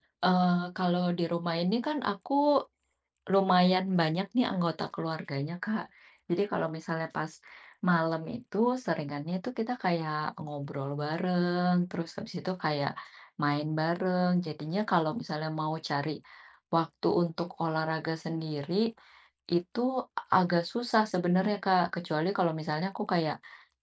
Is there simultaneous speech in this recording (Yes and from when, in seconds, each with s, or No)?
No